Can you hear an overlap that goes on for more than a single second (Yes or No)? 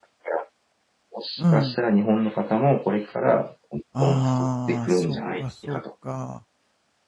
Yes